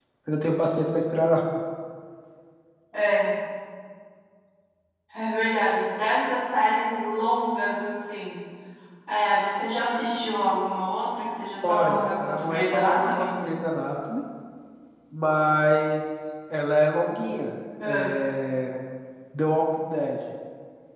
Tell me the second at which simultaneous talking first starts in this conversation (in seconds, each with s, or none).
11.6 s